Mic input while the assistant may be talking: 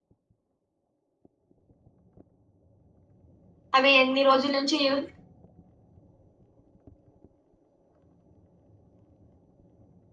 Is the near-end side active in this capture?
Yes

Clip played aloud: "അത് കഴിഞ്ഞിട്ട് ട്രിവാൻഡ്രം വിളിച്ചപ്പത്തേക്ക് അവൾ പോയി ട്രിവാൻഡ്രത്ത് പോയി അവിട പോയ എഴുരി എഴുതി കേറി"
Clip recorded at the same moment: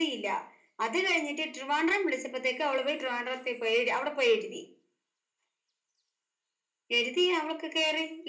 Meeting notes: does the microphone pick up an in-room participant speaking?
No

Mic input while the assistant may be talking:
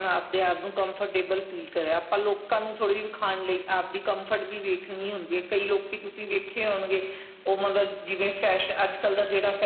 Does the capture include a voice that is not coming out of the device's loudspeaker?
No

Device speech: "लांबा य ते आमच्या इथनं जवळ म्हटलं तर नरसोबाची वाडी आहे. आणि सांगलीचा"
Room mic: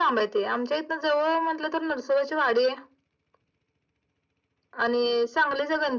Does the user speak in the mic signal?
No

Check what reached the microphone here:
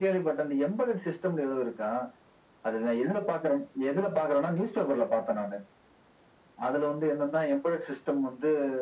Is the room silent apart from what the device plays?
Yes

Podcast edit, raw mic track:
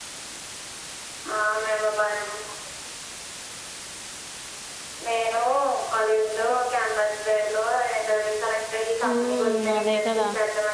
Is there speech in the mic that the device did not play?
Yes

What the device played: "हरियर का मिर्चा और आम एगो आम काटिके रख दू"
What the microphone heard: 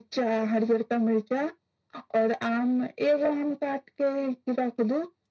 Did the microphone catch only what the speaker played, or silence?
Yes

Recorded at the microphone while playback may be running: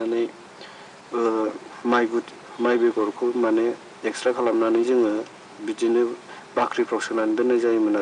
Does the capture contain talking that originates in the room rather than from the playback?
No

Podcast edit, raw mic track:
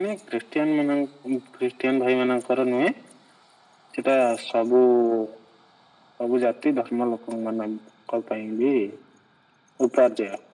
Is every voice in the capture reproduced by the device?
Yes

